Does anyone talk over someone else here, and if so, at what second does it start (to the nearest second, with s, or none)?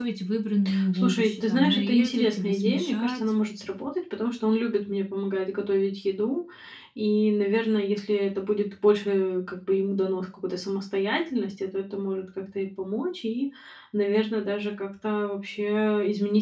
1 s